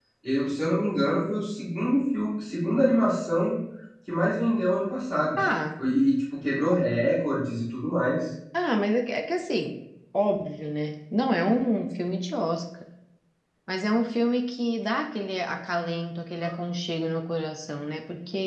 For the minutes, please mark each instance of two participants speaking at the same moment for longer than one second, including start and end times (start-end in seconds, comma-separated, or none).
none